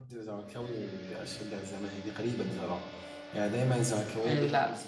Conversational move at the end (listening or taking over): listening